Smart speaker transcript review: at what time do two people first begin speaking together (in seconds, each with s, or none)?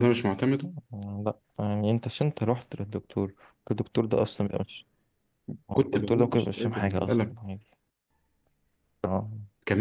5.8 s